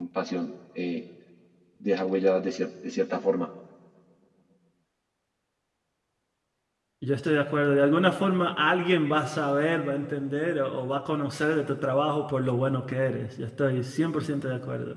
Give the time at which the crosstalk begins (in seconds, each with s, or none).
none